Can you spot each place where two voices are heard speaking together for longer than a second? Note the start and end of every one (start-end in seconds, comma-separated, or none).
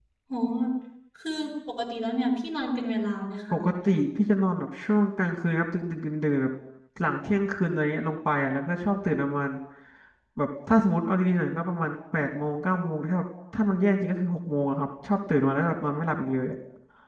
none